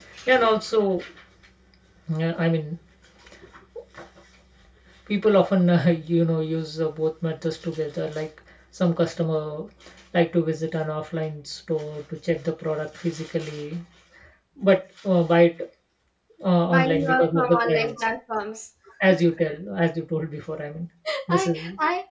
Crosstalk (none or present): present